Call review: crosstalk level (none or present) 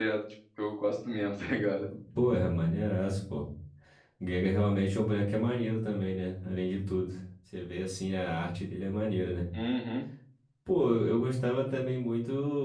none